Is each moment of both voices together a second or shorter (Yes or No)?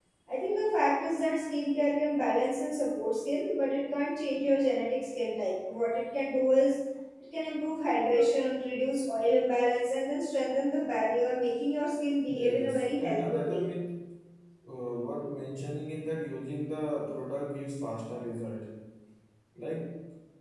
No